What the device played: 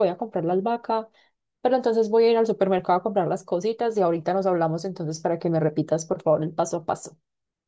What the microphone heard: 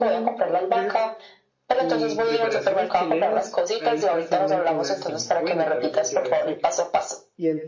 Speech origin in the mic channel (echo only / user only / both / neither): both